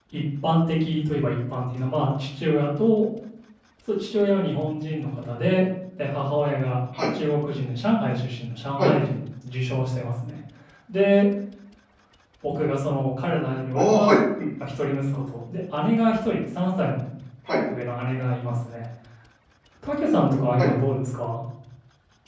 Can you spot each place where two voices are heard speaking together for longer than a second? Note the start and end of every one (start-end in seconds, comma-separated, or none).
none